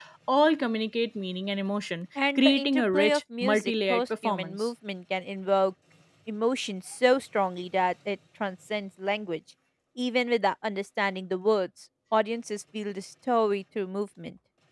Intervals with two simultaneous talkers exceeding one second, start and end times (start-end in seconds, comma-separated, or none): 2.4-4.7